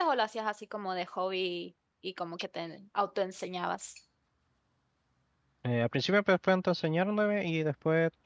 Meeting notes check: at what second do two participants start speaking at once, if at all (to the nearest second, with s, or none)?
none